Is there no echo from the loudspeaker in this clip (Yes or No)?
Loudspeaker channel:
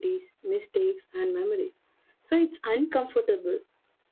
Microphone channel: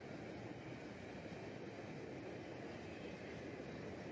Yes